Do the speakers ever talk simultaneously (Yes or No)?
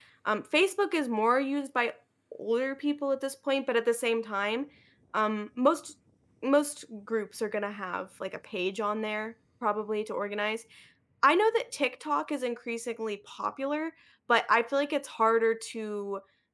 No